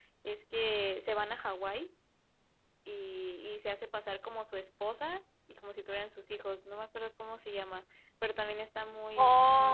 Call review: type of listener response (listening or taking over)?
taking over